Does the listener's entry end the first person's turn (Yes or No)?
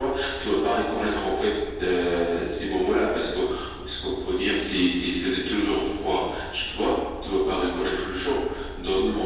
No